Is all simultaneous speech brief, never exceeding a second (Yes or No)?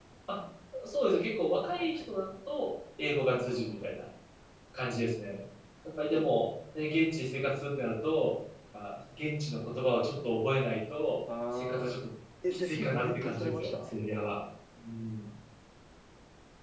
No